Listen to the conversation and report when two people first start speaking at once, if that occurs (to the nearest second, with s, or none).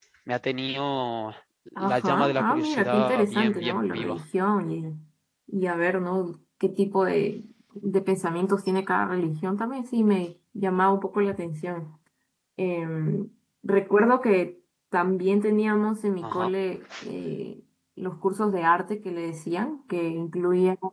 2 s